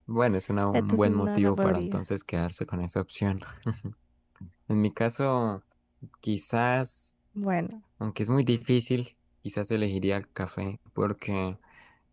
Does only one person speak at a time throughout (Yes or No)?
No